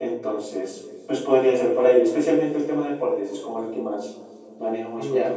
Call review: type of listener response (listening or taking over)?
taking over